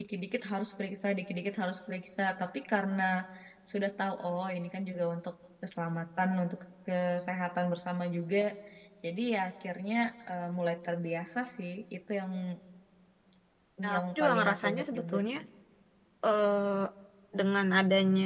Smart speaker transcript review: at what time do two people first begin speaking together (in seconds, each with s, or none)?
13.9 s